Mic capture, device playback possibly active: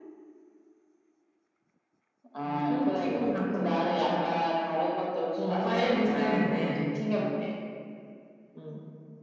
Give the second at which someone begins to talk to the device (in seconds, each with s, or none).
none